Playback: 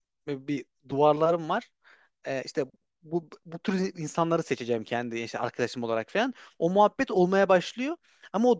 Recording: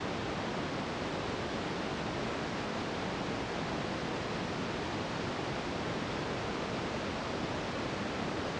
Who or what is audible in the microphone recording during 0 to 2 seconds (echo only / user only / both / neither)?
neither